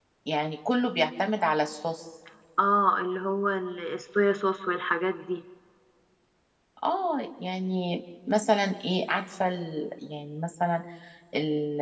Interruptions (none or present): none